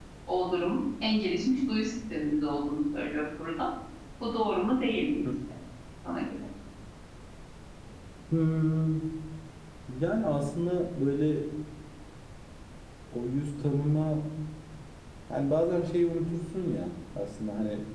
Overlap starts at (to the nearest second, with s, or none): none